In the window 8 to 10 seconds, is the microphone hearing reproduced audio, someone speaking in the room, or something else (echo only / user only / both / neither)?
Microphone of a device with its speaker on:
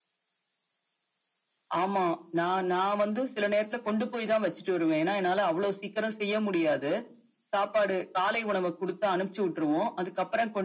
echo only